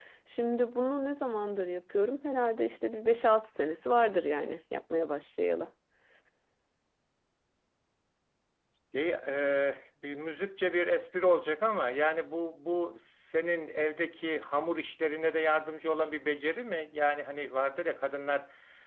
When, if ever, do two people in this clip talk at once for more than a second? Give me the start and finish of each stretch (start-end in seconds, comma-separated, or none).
none